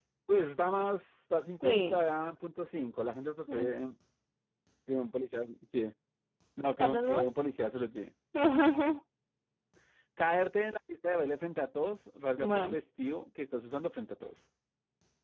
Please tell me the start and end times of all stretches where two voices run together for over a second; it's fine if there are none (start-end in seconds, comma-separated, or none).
none